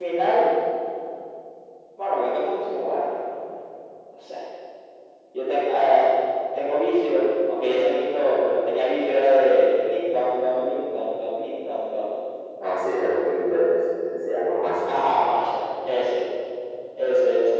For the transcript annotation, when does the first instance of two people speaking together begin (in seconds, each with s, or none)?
none